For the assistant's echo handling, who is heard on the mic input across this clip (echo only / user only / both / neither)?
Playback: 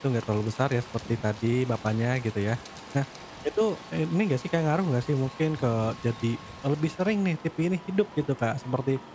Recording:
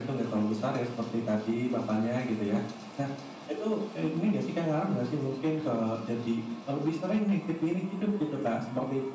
echo only